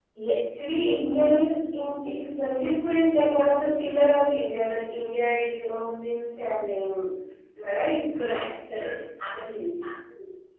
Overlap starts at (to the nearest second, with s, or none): none